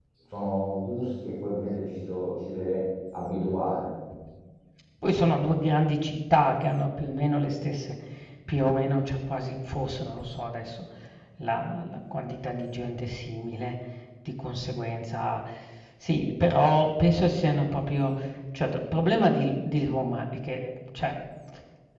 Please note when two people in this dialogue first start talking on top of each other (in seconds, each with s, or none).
none